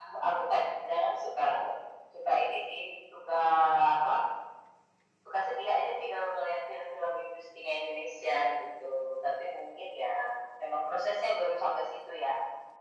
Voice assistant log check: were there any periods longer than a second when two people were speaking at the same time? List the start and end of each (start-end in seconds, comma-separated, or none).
none